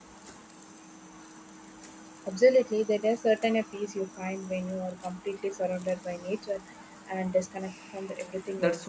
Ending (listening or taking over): taking over